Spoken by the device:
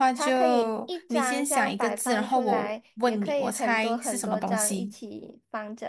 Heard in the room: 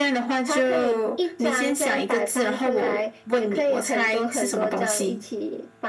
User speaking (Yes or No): No